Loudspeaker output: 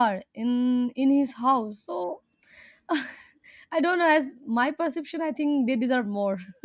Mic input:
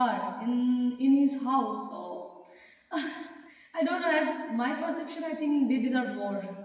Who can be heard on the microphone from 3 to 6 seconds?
echo only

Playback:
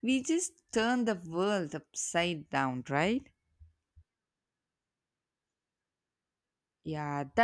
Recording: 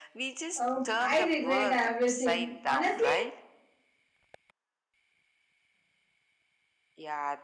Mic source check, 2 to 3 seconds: both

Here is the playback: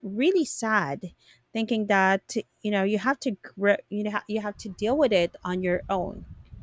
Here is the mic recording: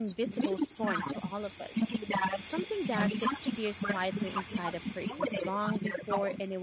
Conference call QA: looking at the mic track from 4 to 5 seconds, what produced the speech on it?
both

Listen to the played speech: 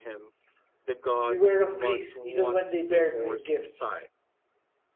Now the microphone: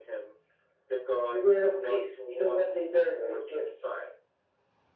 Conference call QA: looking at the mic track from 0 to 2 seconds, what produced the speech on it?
echo only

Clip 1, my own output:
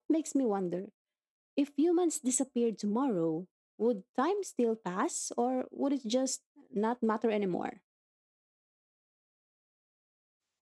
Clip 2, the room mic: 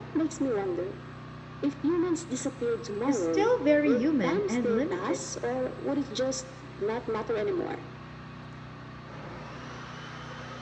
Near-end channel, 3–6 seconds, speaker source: both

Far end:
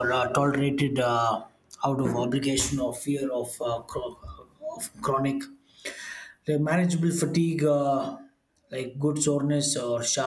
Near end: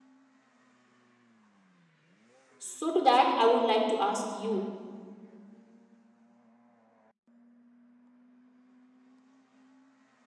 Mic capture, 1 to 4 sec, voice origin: user only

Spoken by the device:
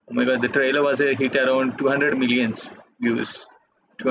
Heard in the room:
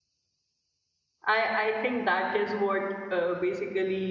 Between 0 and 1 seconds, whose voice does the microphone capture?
neither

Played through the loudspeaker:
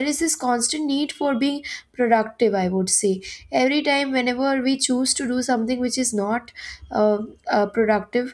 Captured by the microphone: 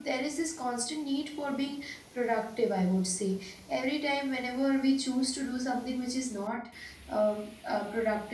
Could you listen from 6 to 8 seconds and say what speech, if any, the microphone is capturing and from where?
echo only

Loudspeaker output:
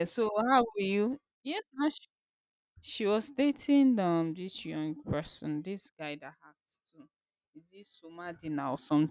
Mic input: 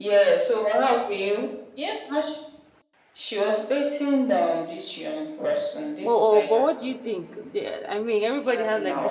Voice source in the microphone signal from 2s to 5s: echo only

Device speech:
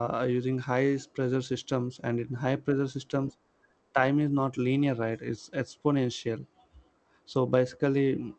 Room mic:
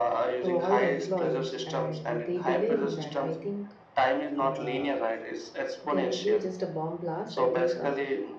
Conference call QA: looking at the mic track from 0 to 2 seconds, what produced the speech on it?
both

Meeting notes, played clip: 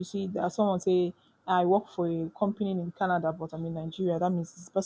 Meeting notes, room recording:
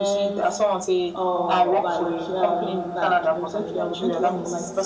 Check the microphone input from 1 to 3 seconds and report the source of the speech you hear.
both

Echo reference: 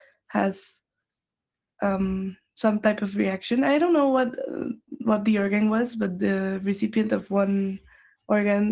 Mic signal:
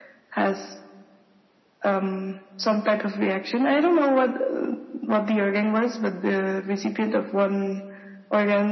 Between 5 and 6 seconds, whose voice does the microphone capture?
echo only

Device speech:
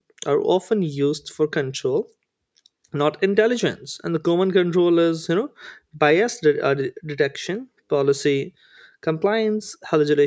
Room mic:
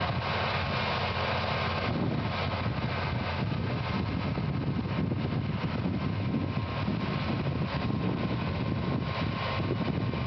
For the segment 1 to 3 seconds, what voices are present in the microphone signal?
neither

